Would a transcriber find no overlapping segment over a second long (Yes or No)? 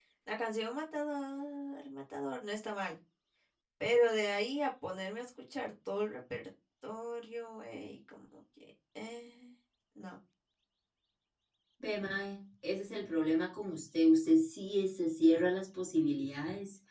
Yes